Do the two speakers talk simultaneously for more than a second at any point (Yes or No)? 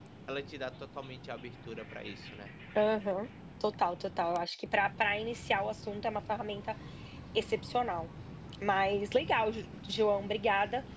No